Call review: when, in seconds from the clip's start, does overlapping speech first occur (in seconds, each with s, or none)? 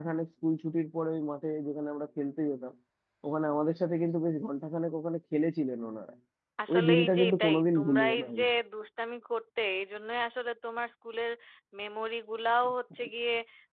6.7 s